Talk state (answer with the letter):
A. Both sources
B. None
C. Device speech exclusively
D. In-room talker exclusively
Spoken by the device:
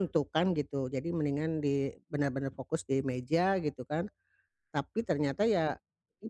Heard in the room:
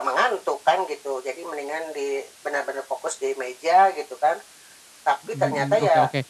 A